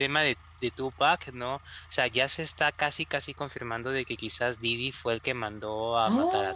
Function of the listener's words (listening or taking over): taking over